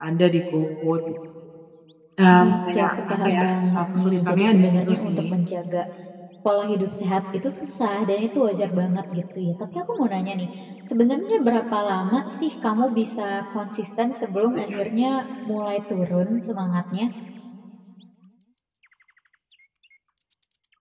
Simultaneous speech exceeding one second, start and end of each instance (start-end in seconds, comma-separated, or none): 2.4-5.2